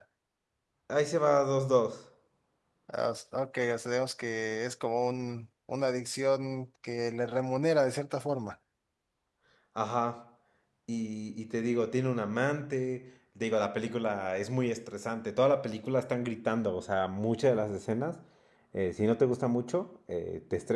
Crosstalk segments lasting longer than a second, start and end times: none

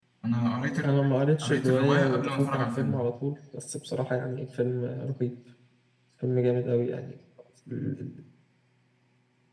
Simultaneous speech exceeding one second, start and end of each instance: 1.4-3.0

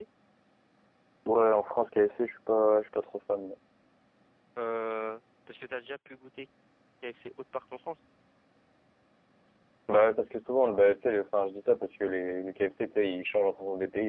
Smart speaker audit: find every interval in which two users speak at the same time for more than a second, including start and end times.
none

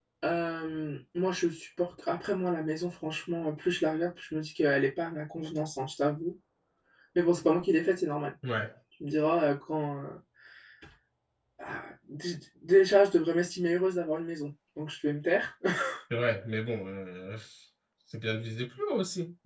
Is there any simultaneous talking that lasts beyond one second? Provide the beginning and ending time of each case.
none

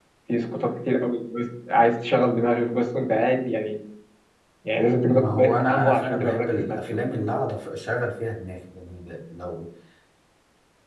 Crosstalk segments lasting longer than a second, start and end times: 5.1-7.0

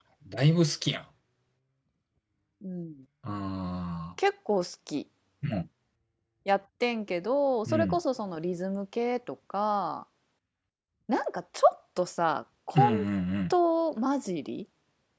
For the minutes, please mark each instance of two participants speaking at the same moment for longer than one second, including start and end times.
none

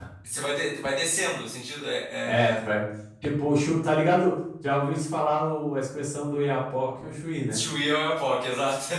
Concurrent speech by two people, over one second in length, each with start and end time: none

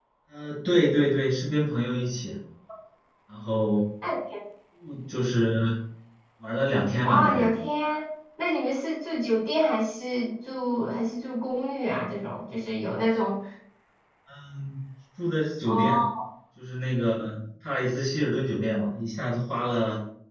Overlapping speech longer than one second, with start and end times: none

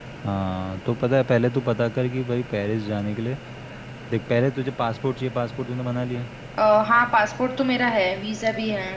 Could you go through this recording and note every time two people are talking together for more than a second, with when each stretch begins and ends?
none

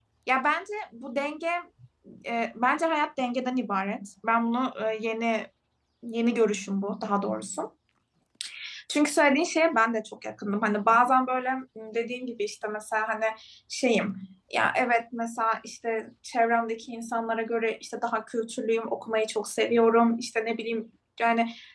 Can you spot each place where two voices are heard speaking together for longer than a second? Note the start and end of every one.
none

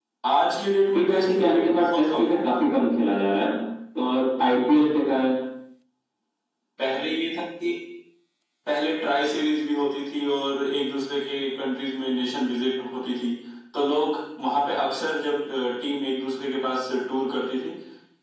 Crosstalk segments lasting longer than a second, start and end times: 0.9-2.6

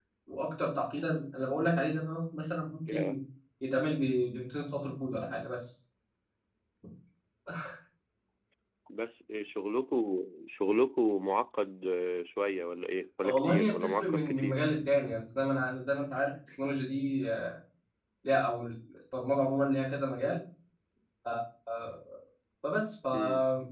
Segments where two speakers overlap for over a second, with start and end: 13.2-14.6

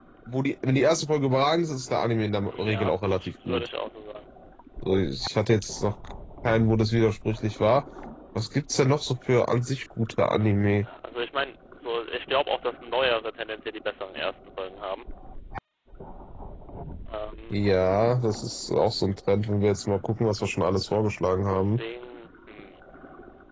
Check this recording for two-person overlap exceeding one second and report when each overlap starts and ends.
2.5-3.7

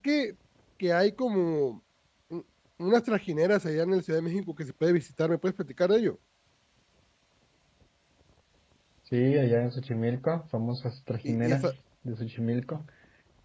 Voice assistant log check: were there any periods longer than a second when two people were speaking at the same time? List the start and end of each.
none

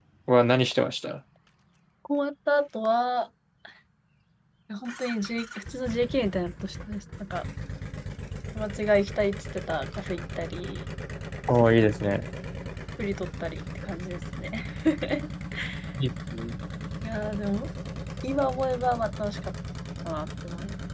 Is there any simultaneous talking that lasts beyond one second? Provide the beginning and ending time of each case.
none

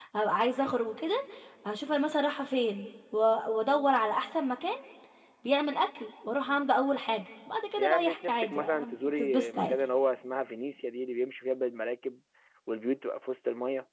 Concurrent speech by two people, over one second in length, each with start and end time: 7.8-9.7

